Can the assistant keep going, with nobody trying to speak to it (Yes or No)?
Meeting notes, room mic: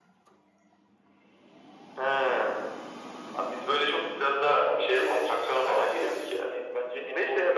Yes